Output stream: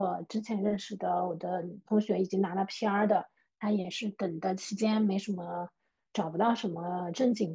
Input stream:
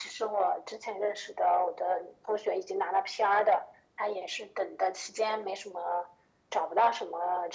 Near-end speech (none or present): none